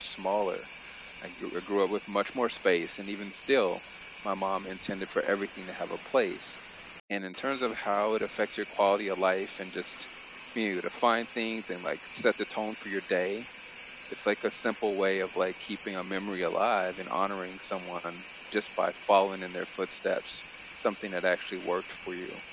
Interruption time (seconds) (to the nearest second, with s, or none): none